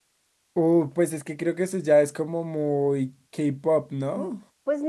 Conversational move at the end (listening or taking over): taking over